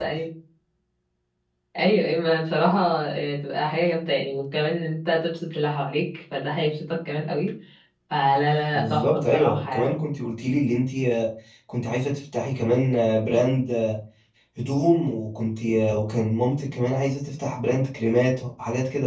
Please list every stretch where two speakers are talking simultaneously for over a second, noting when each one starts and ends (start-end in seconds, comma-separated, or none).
8.7-9.9